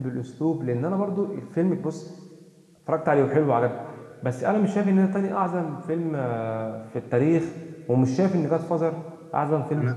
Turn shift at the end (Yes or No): Yes